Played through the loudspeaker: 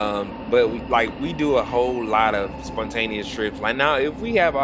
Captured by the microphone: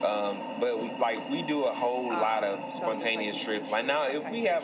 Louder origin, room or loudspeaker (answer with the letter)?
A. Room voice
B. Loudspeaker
B